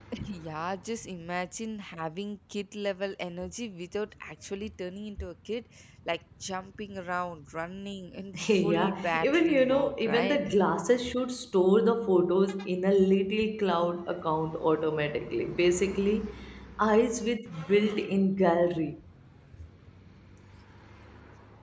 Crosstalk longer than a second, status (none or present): present